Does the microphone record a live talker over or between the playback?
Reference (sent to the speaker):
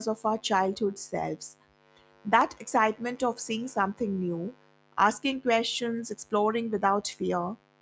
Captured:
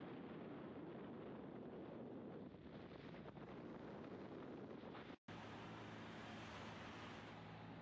No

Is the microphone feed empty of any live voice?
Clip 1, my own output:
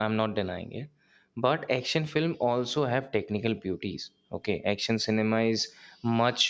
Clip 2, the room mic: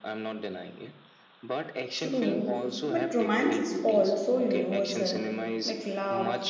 No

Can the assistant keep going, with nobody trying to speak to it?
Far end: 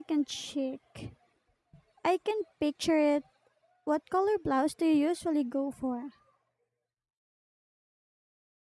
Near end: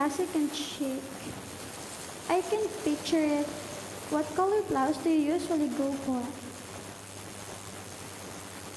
Yes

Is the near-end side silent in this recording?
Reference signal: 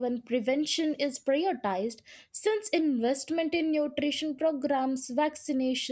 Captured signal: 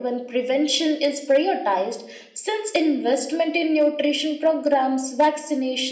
Yes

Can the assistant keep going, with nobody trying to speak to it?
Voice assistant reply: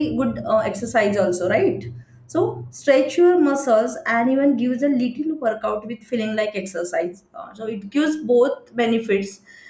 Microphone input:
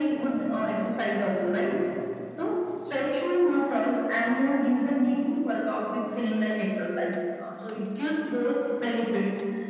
Yes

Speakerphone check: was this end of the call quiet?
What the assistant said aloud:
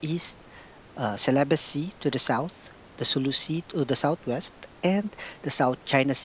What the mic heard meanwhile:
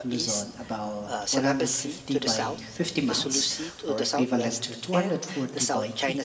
No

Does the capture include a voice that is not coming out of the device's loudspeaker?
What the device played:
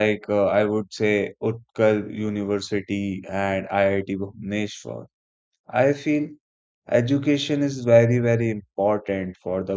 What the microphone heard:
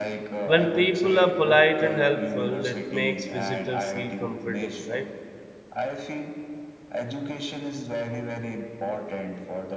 Yes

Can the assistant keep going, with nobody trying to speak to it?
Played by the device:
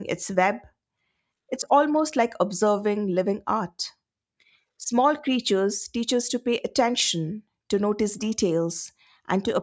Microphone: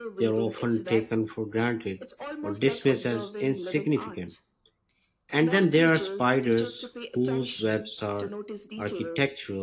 No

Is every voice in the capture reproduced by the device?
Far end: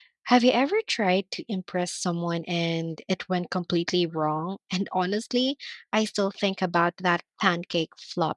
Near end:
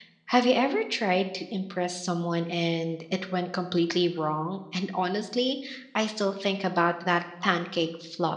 Yes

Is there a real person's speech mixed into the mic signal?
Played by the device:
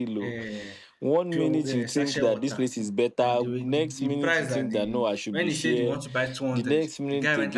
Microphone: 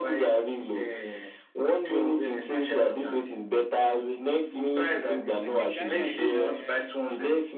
Yes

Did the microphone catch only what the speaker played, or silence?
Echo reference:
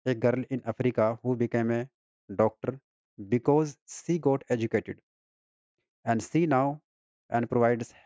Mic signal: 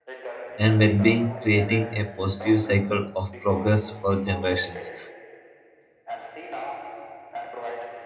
No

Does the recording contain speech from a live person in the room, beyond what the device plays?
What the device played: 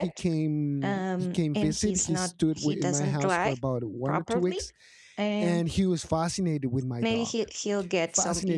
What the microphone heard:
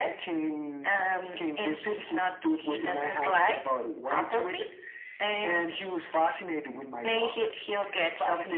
No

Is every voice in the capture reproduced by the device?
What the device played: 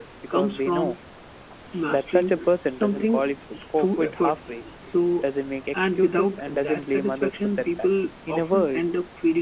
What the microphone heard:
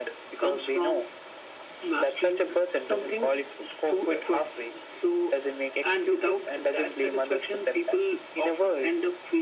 Yes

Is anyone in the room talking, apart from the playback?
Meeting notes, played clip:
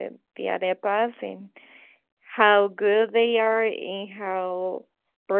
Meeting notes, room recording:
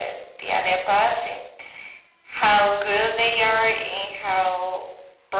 No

